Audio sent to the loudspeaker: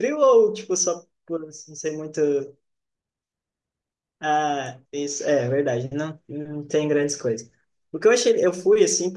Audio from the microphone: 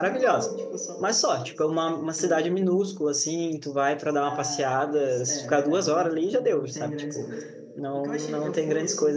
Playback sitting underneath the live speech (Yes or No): Yes